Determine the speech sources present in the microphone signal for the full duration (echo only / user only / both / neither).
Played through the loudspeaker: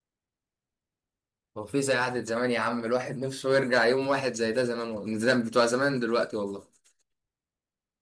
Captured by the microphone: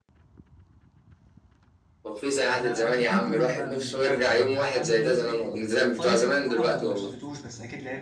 both